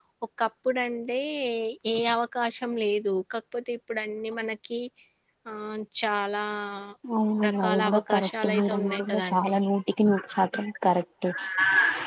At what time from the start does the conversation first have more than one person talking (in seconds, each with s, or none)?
7.5 s